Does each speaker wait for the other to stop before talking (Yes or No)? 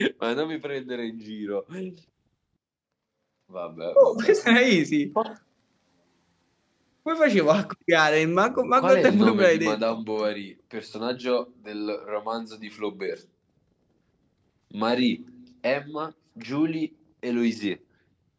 No